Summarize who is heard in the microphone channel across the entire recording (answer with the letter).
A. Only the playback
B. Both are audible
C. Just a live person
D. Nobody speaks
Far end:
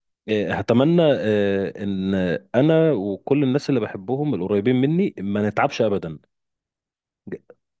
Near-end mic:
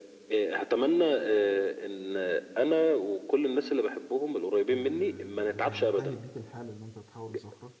B